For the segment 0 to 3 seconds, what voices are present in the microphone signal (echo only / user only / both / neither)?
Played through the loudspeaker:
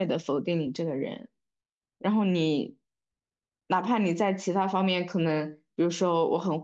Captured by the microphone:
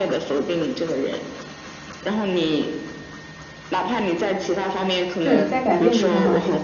echo only